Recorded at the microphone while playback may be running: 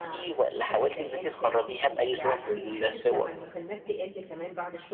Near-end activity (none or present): present